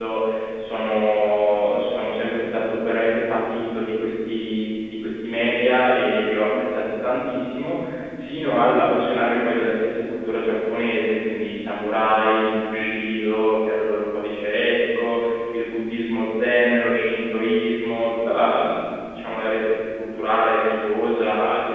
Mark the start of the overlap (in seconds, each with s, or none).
none